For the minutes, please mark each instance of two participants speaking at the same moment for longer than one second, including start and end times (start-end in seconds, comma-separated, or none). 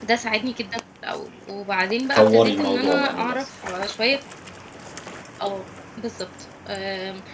2.1-3.4